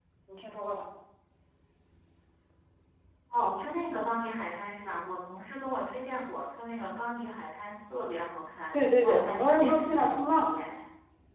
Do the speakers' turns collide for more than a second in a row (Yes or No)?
Yes